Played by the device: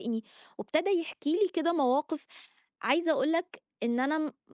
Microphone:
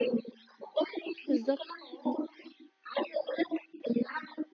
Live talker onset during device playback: 1 s

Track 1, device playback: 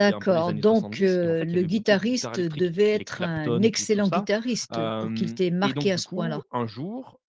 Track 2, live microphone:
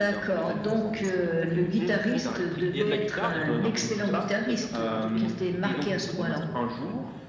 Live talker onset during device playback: 2 s

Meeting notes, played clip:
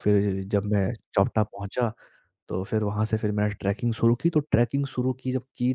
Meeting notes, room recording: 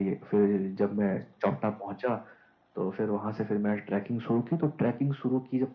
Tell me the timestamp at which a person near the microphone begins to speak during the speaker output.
none

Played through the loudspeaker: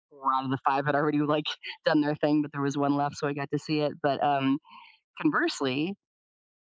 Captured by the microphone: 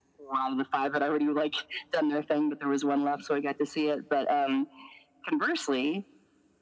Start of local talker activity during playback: none

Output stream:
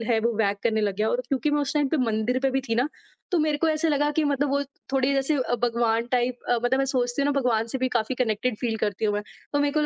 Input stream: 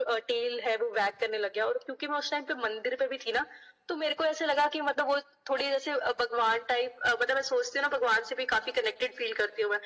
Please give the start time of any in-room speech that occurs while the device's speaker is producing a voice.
none

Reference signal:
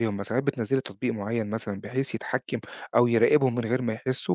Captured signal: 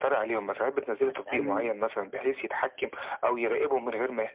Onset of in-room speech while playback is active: 1 s

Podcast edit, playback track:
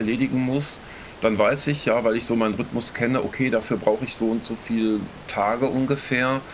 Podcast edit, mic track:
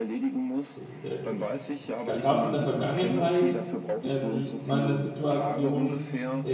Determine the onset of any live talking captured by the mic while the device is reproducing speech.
1 s

